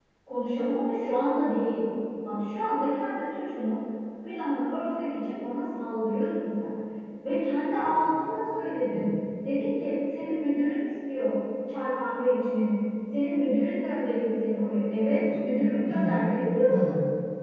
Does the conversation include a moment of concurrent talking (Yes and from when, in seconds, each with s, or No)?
Yes, from 7.7 s